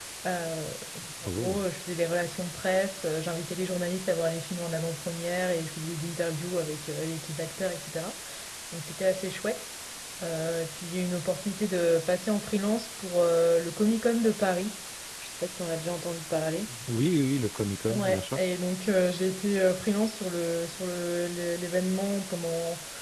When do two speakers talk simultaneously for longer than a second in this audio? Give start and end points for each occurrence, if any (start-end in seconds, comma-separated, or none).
none